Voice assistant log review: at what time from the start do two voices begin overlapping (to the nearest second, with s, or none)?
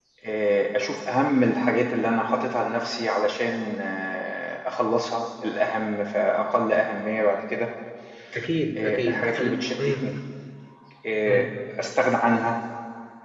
9 s